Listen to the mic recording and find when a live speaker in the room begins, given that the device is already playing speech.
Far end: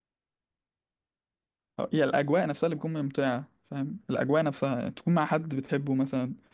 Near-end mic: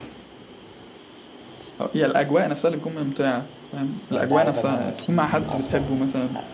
4 s

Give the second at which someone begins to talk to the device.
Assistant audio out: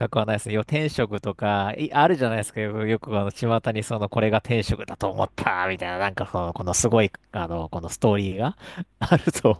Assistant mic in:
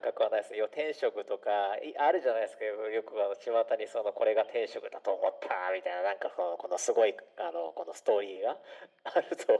none

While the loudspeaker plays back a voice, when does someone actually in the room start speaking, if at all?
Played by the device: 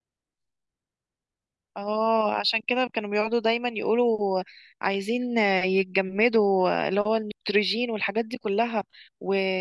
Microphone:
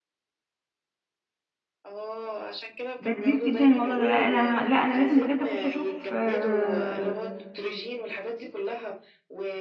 3 s

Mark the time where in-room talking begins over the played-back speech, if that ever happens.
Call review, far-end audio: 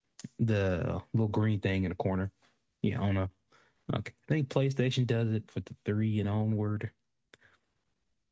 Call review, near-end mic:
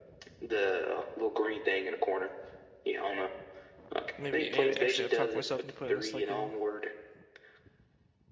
4 s

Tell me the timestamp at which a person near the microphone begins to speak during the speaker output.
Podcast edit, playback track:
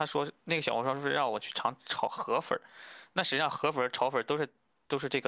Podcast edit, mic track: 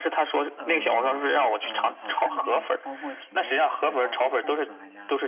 1 s

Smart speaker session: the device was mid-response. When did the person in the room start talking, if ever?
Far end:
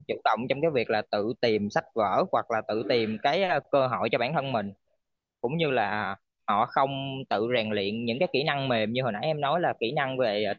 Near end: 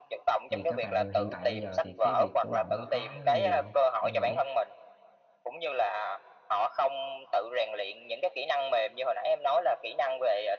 1 s

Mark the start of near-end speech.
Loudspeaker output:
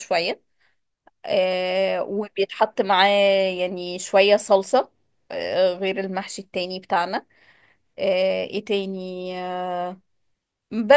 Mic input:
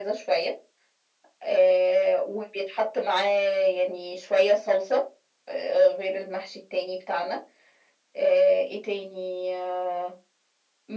none

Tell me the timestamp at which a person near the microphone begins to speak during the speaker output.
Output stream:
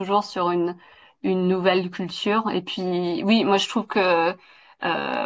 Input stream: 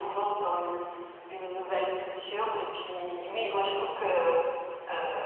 none

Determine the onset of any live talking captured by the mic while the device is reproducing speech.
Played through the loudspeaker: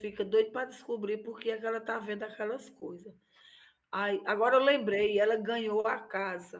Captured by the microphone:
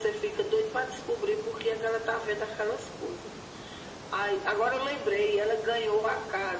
none

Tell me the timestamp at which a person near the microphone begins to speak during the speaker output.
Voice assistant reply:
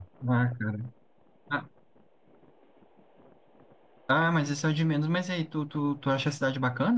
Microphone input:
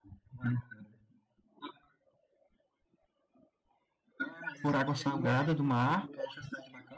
5 s

